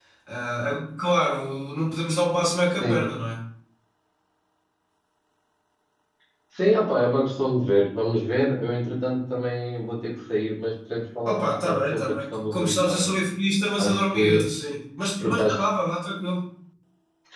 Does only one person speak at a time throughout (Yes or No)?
No